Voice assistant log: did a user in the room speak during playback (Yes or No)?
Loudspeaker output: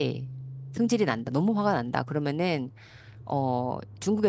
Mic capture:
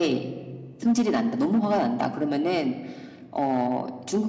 No